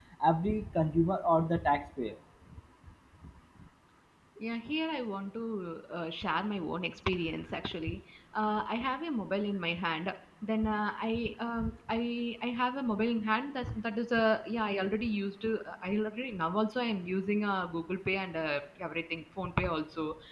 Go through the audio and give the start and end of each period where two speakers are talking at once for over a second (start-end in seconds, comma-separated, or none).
none